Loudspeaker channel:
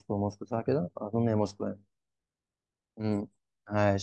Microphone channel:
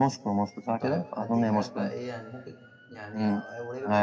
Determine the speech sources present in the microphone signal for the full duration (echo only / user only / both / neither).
both